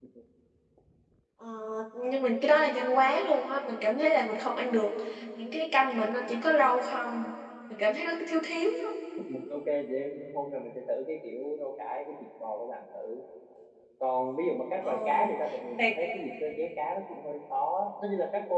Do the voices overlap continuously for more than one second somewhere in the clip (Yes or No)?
No